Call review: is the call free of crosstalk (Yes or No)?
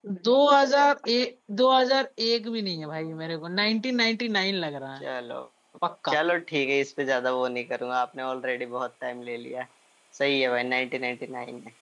Yes